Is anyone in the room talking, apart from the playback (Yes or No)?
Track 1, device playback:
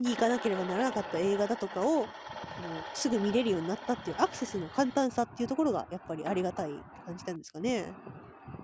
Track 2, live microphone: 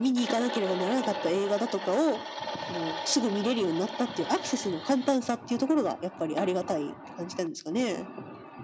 No